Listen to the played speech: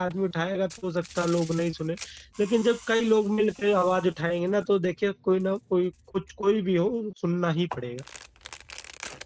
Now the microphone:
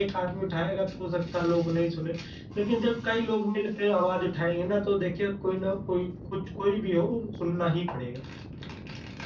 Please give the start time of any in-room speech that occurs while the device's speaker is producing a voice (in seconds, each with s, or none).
none